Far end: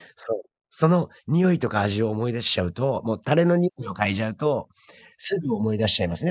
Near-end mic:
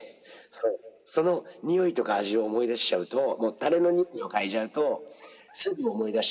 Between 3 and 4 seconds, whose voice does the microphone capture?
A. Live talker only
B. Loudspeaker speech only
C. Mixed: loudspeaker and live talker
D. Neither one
B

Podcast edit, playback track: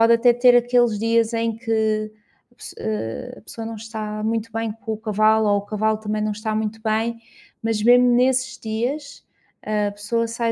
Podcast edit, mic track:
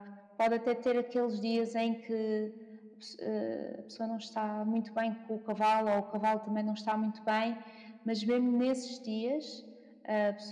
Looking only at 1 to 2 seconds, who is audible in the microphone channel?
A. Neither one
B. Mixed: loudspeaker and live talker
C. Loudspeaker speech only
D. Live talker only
C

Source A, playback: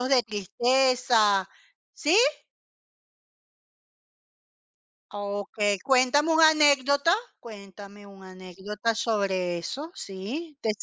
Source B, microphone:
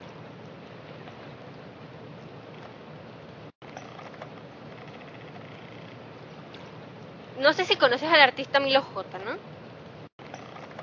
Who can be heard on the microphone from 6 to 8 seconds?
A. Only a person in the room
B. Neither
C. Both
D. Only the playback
A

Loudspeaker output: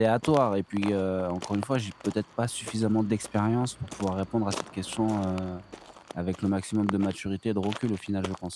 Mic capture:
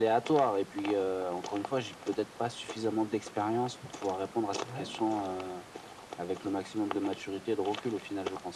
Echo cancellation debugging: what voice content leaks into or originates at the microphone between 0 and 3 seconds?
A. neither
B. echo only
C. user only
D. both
B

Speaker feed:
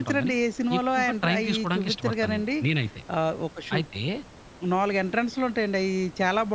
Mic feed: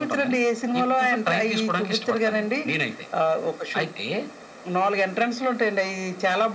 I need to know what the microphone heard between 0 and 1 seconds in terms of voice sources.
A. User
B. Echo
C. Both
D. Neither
B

